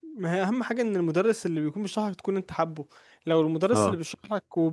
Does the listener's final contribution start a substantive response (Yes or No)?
No